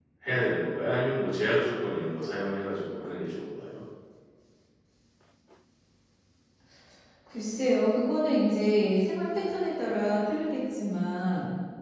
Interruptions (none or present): none